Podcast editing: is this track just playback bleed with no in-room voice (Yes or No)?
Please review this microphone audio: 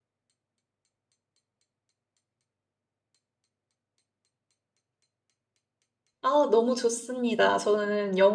No